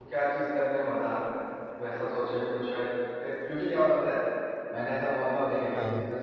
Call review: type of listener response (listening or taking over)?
listening